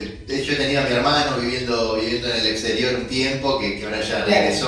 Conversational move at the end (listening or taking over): listening